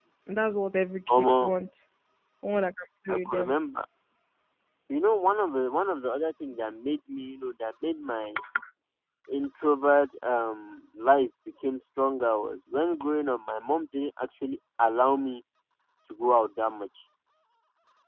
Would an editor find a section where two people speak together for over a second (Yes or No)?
No